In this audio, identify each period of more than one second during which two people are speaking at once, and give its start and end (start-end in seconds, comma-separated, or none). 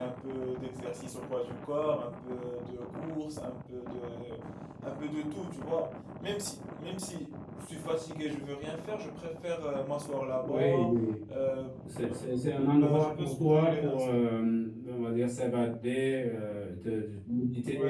12.7-13.9